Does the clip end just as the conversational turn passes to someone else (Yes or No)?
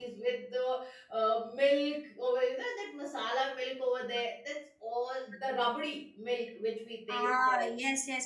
Yes